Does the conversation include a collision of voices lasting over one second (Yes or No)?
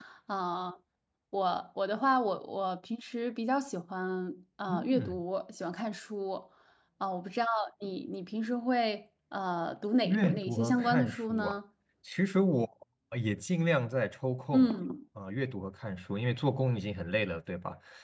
Yes